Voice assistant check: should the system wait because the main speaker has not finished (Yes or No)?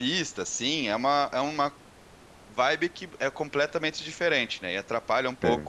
Yes